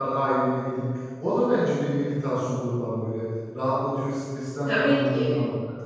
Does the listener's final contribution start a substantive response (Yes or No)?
Yes